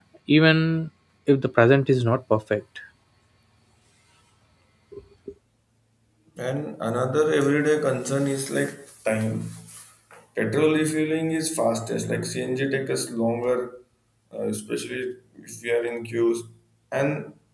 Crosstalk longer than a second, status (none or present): none